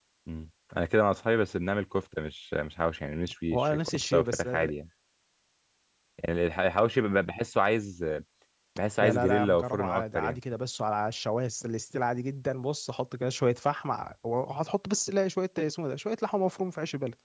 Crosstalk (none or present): present